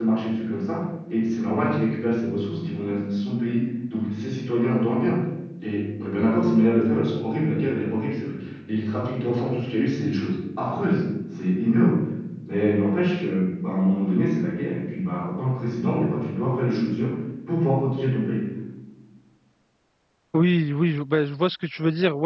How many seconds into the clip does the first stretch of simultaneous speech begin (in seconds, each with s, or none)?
none